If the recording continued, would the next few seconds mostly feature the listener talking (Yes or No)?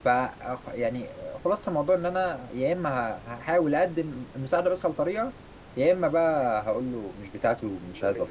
Yes